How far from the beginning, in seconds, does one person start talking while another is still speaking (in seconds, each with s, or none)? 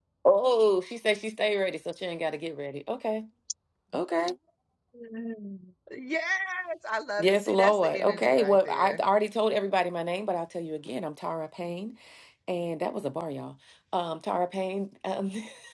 7.2 s